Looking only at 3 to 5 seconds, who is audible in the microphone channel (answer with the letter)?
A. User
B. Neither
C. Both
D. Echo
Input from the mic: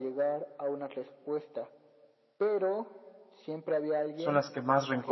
C